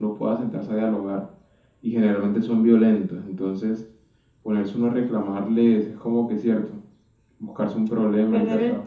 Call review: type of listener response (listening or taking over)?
taking over